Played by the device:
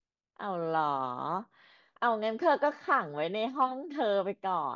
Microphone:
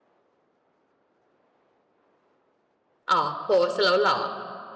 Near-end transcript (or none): อ๋อโพสต์แล้วเหรอ